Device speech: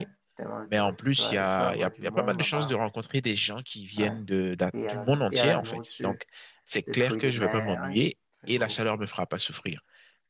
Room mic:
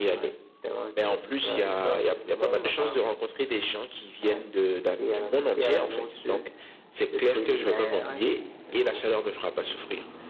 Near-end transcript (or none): none